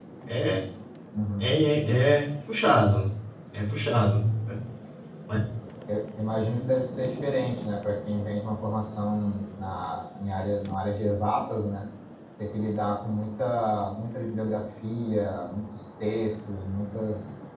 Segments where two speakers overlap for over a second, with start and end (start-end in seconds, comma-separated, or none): none